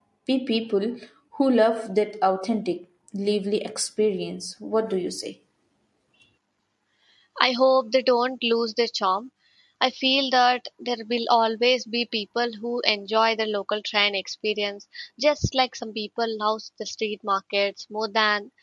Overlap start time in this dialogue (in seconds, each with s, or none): none